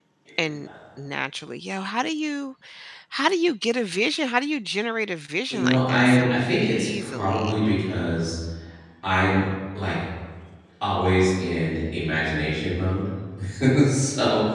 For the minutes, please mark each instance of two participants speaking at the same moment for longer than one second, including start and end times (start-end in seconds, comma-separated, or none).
5.5-7.7